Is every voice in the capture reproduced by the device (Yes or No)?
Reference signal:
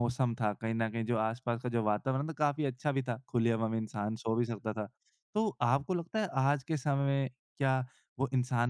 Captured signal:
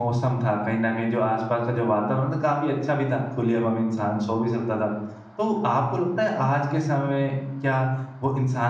Yes